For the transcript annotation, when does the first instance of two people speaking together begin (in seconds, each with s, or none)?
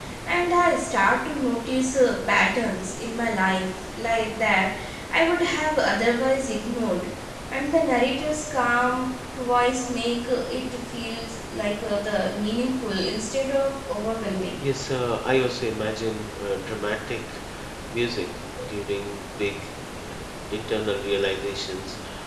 none